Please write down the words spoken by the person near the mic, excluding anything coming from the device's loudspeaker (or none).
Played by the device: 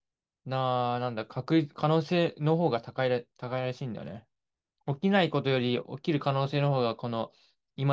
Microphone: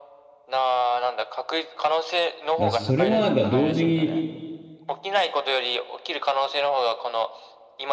らそれもなんか同時に、